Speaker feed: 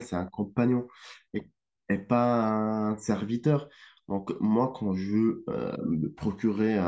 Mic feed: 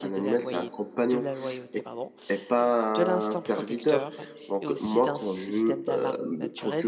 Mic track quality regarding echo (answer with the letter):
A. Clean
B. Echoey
B